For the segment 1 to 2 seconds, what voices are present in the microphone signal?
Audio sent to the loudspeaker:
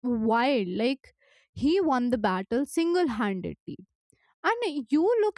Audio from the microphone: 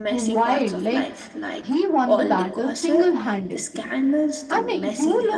both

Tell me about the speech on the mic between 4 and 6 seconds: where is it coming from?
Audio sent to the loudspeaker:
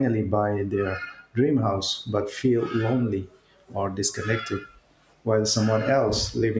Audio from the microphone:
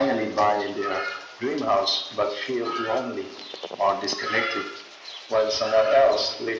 echo only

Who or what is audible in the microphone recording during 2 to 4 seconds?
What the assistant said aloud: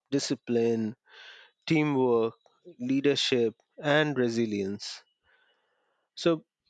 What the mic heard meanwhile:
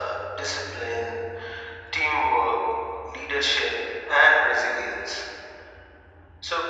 echo only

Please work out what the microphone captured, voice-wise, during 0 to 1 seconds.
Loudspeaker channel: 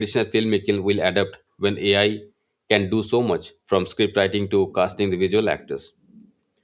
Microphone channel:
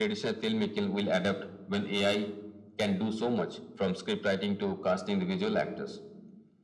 echo only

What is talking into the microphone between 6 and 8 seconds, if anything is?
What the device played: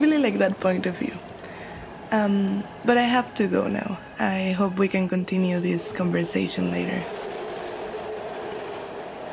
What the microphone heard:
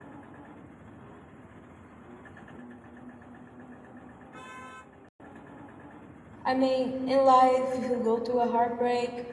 user only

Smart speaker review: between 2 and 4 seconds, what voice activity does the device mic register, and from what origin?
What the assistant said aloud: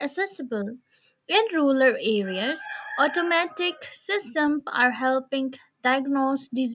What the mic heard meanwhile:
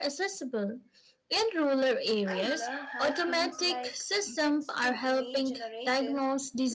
both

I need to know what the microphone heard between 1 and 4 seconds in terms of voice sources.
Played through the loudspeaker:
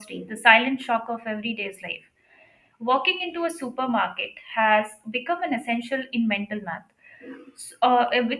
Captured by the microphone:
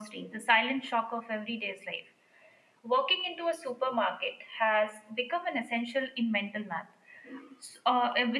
echo only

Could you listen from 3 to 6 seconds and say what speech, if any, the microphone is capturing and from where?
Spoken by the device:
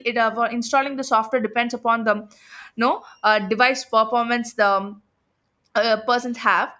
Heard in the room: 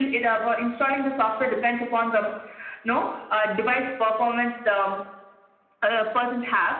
echo only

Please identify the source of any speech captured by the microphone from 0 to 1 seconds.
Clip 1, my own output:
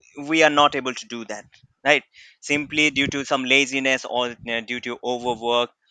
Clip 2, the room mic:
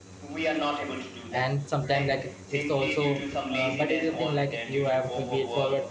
echo only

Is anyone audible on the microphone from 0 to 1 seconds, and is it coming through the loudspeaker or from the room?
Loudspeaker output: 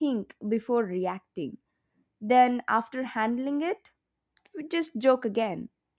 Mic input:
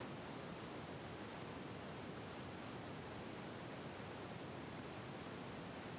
neither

